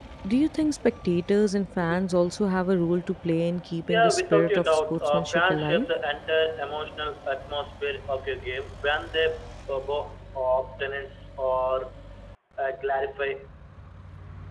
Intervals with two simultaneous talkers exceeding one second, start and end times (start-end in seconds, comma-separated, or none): 3.9-5.9